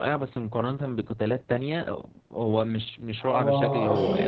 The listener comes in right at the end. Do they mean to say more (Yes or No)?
Yes